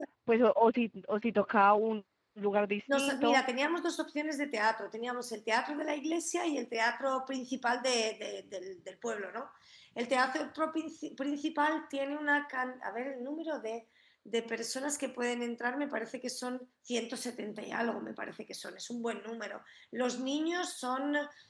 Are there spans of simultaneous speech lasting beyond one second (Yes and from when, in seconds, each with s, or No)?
No